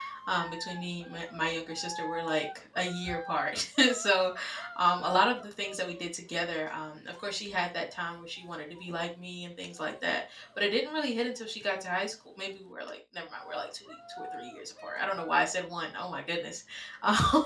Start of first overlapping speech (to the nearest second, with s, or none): none